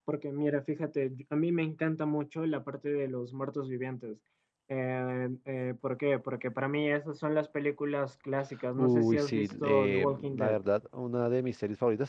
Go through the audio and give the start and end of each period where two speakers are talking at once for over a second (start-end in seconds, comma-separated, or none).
8.8-10.6